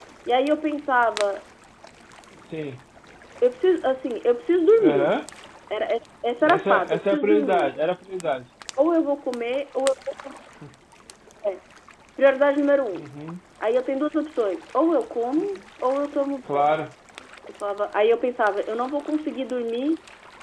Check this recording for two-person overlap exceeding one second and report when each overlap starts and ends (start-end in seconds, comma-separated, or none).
6.4-7.7